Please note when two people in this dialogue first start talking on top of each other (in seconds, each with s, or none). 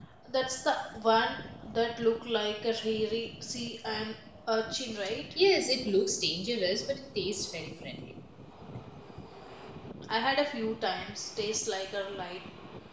none